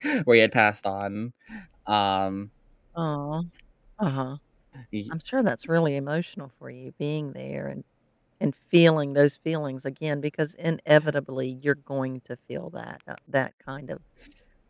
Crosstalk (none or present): none